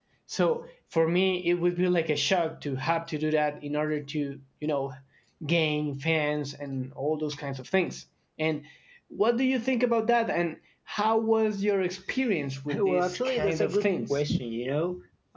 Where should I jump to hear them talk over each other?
12.7 s

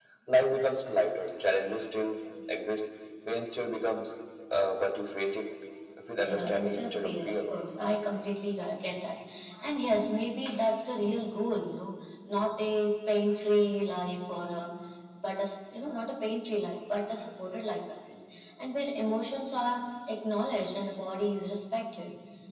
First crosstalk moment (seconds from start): 6.2 s

